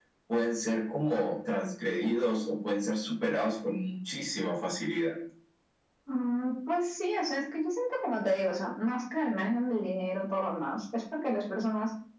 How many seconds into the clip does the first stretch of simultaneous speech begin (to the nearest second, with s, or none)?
none